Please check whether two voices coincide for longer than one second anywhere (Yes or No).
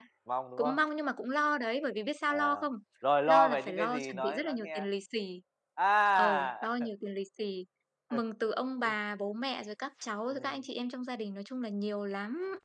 Yes